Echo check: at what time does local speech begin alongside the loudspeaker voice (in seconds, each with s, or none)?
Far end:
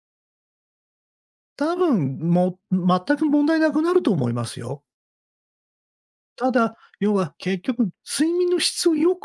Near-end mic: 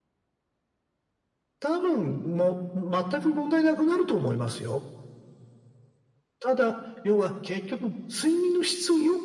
none